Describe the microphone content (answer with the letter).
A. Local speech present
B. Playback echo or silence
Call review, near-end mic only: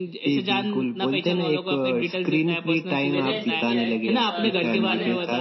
A